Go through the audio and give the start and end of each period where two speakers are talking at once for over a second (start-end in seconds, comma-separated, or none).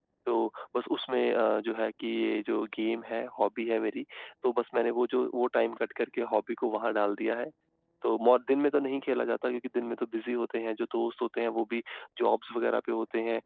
none